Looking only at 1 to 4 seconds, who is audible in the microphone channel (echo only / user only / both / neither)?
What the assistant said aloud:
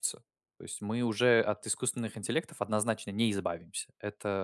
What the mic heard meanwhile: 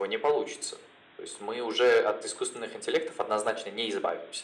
echo only